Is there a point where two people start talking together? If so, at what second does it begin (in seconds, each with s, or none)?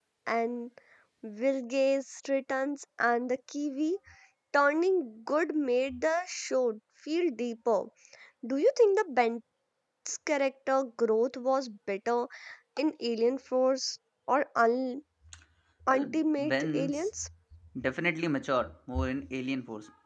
15.9 s